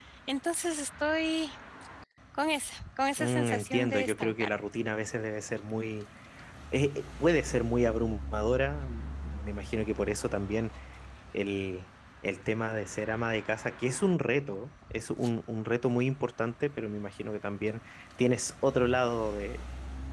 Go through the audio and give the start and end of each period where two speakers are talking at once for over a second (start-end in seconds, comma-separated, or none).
3.2-4.6